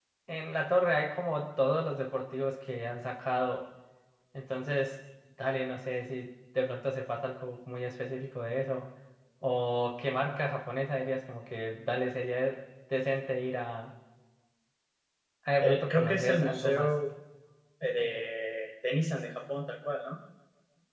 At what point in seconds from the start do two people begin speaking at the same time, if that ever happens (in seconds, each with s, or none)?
15.6 s